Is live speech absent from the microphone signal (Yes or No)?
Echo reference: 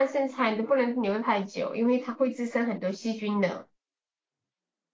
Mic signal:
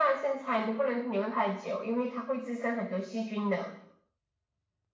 Yes